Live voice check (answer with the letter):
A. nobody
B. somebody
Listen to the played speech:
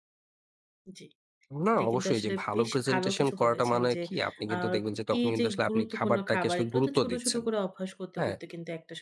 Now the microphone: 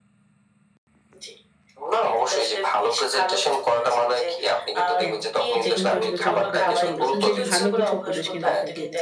B